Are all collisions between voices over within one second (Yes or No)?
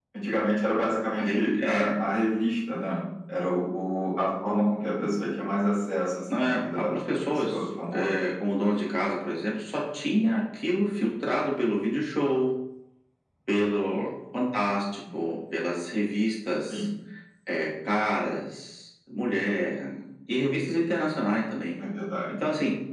No